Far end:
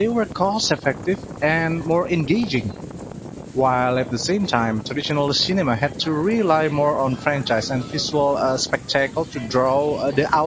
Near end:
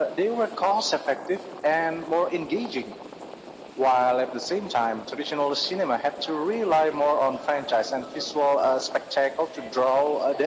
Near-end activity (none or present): none